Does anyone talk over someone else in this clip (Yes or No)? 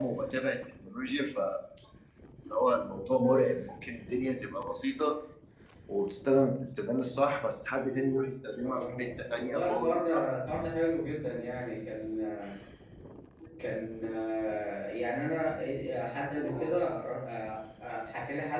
Yes